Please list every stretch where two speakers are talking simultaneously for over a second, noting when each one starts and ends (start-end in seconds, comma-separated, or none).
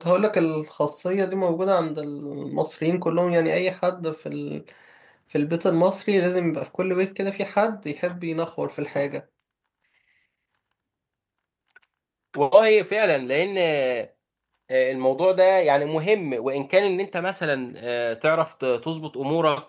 none